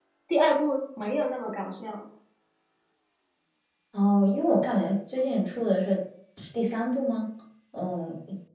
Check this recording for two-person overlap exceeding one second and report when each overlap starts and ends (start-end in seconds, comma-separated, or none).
none